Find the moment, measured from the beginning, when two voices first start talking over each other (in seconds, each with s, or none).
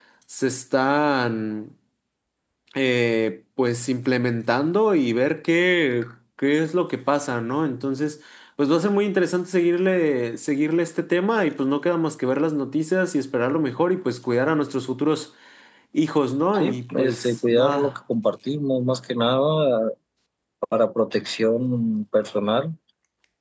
16.6 s